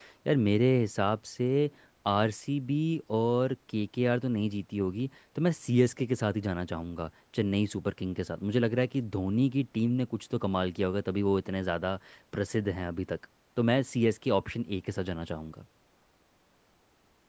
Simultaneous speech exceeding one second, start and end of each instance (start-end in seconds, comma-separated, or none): none